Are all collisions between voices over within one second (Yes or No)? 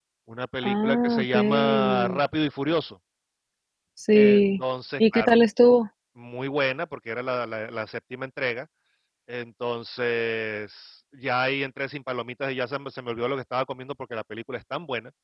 No